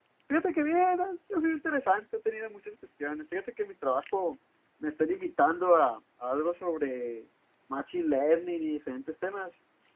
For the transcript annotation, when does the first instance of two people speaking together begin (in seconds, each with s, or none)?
none